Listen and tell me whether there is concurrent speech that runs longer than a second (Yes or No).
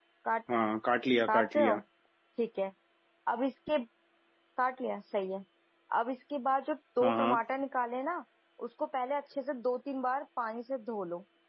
No